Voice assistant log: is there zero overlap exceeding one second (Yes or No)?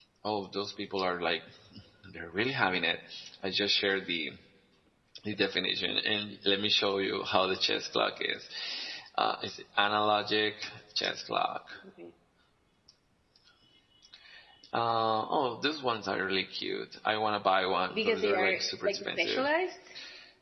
No